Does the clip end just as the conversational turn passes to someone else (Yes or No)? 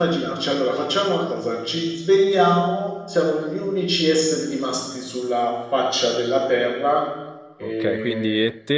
Yes